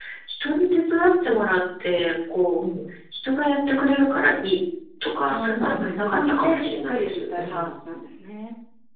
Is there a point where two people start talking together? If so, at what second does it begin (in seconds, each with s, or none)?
5.3 s